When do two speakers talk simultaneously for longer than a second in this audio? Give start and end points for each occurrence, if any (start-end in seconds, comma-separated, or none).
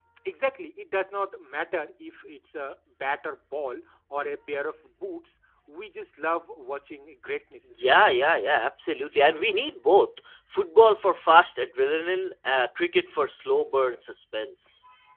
none